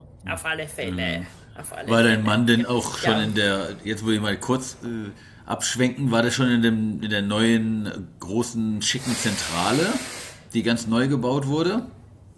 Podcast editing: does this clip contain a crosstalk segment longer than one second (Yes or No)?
No